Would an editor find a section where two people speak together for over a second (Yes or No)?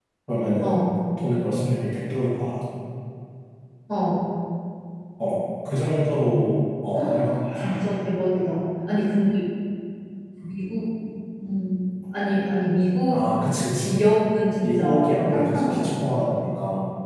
Yes